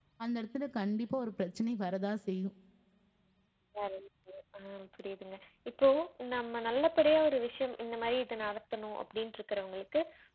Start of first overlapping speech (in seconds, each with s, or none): none